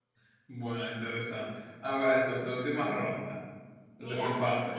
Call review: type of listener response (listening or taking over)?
taking over